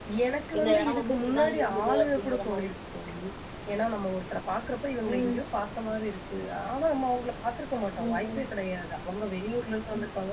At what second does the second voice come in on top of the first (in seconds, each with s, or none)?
0.6 s